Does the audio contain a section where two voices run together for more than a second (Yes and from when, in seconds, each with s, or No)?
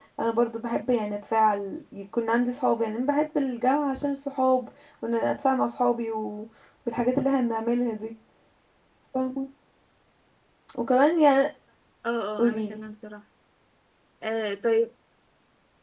No